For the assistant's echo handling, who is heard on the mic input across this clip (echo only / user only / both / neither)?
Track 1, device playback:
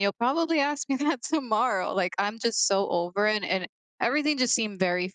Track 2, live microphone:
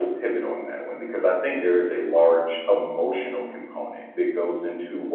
user only